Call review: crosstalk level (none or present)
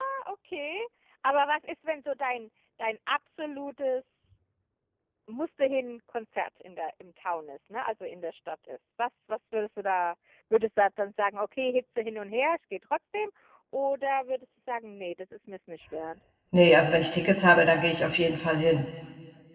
none